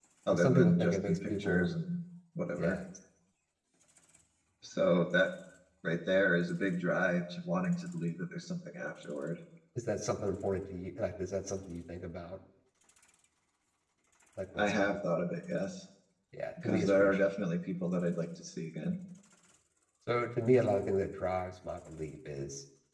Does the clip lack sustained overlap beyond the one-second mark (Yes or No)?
No